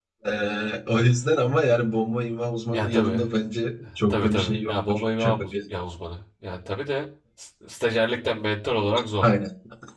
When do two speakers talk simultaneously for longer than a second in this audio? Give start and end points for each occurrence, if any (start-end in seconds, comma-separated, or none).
4.1-5.5